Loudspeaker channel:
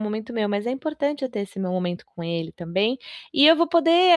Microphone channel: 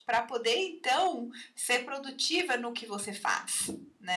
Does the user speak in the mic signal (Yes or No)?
Yes